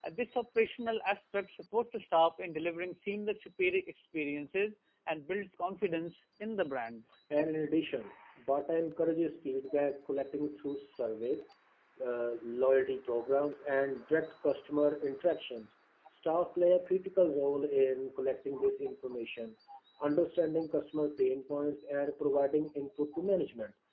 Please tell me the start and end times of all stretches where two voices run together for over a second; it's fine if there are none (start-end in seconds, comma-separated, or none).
none